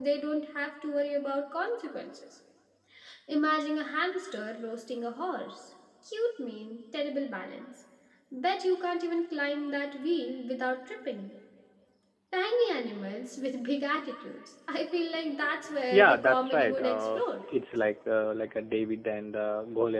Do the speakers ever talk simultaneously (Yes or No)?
Yes